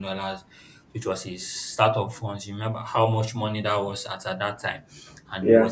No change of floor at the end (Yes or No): Yes